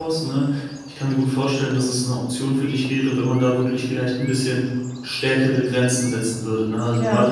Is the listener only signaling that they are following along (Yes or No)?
Yes